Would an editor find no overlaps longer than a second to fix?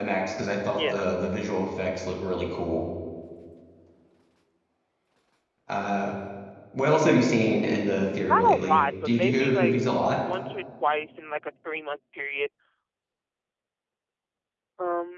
No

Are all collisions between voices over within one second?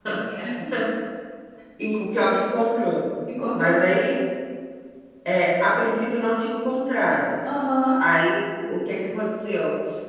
Yes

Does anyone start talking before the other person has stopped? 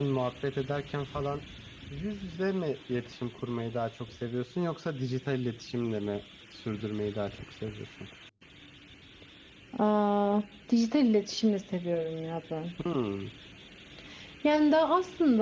No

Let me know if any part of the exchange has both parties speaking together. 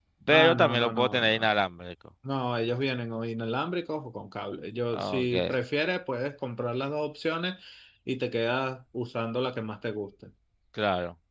Yes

